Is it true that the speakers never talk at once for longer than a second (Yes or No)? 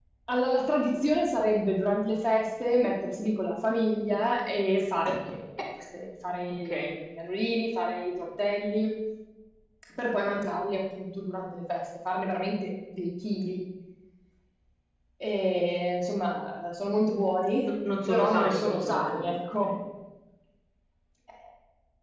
No